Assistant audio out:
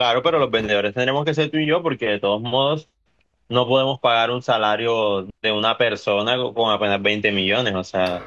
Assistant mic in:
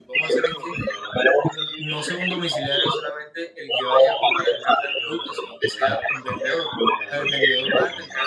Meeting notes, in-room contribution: present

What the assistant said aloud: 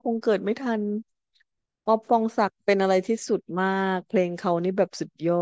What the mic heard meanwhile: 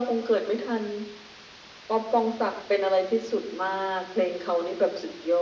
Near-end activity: none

